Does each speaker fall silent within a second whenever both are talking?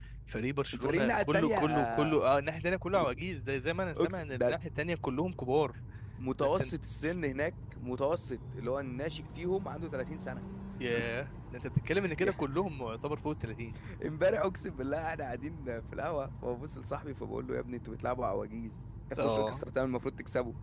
No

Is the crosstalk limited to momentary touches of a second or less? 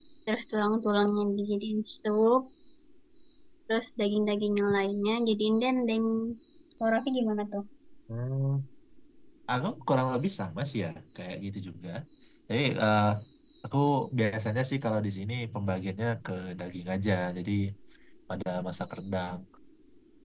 Yes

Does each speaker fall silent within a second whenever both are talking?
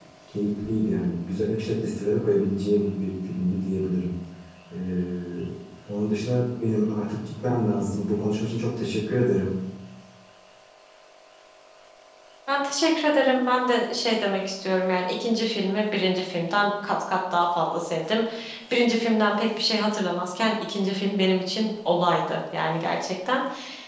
Yes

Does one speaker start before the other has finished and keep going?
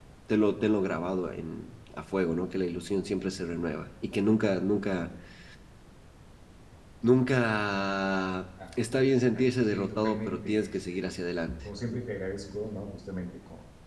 Yes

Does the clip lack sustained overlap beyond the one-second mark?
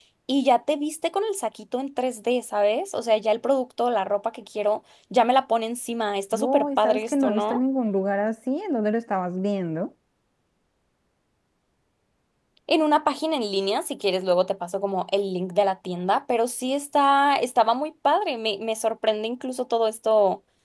No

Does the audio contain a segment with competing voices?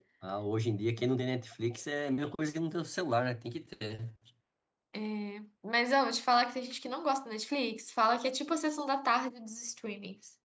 No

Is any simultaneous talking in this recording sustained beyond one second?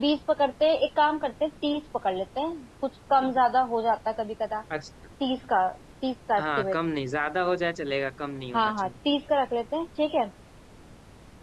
No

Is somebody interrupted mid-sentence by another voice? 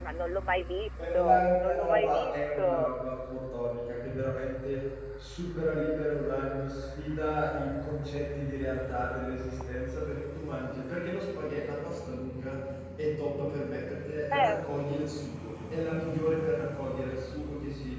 Yes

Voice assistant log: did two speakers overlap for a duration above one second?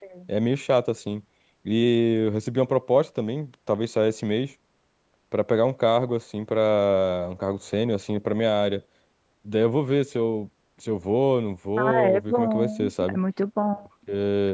Yes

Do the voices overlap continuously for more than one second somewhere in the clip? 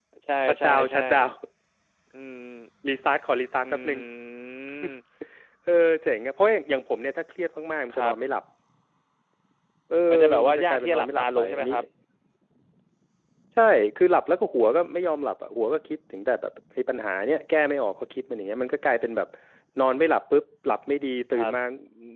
Yes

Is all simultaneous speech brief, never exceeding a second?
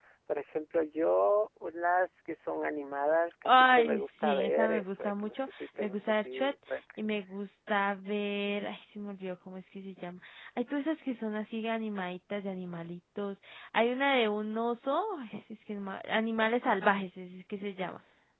No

